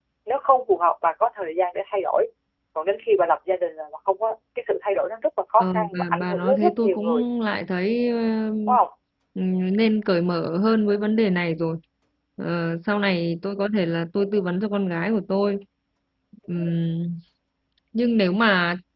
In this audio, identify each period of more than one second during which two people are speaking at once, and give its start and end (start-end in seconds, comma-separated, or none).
5.6-7.2